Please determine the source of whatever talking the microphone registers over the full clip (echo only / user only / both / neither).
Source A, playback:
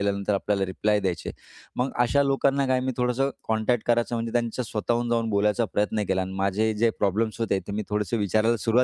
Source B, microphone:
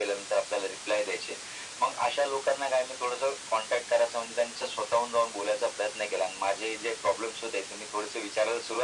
echo only